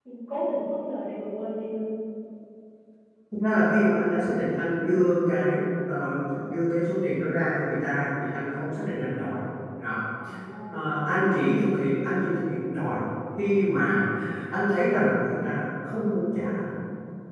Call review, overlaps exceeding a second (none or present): none